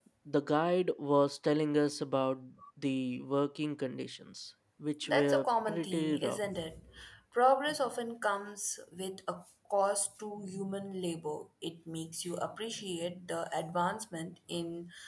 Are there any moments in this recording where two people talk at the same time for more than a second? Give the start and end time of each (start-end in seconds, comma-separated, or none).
5.1-6.4